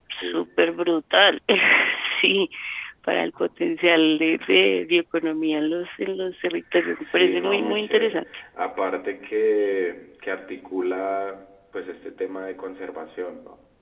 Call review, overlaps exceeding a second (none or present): present